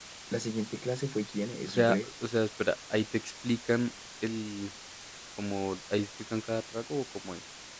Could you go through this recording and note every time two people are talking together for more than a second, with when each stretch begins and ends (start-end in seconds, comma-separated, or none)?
none